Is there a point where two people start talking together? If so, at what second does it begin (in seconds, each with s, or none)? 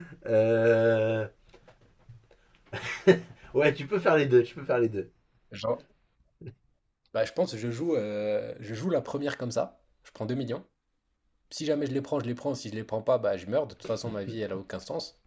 none